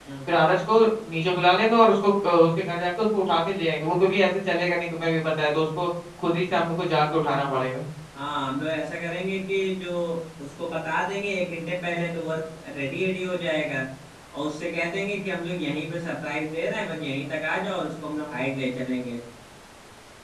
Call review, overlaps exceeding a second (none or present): none